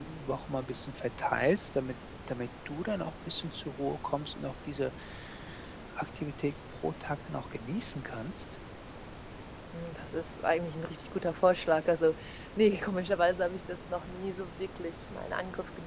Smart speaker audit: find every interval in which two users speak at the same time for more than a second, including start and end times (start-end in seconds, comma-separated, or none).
none